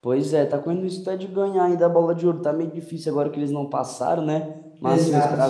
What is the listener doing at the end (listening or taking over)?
listening